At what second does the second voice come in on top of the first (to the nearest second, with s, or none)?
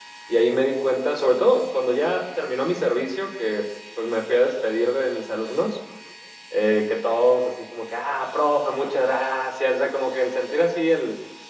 none